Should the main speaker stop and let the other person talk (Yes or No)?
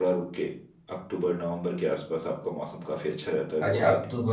Yes